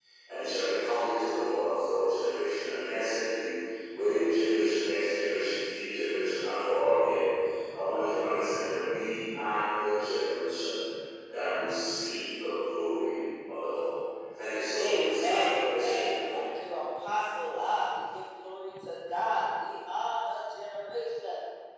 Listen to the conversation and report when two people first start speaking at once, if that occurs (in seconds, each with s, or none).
14.8 s